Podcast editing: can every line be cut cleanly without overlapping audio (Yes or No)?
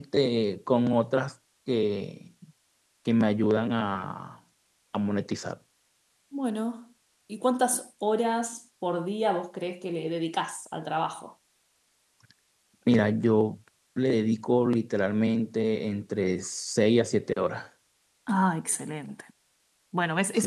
Yes